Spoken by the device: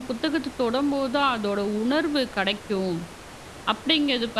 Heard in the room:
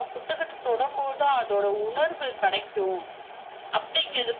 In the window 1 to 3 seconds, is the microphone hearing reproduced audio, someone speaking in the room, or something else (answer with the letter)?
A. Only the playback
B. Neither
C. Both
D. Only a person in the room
A